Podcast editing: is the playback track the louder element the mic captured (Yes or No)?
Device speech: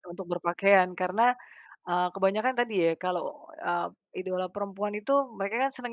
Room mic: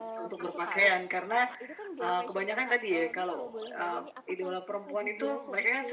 Yes